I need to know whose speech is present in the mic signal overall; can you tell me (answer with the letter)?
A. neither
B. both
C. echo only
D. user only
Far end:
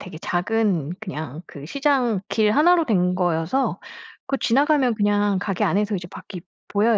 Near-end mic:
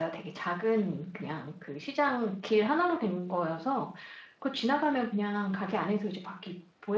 C